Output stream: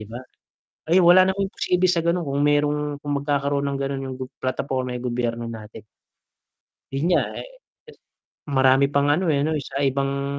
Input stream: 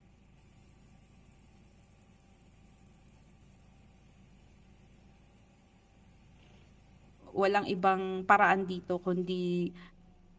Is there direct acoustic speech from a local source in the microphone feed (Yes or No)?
Yes